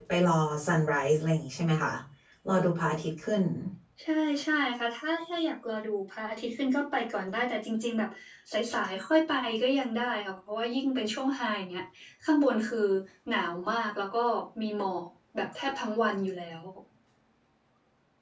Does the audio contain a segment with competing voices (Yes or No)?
No